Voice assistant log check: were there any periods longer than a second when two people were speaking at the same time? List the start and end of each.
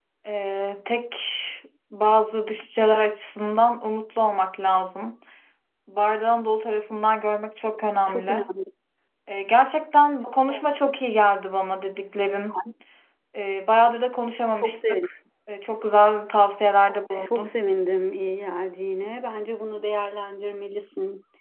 none

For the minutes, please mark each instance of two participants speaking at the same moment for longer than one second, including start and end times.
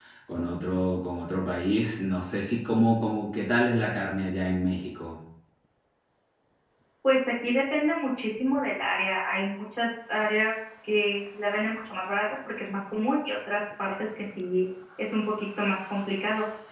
none

